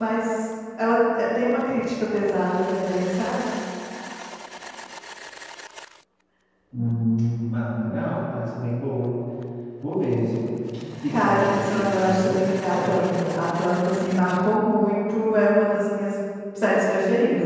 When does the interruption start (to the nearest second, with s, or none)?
11 s